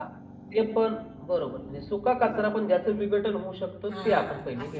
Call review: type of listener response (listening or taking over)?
taking over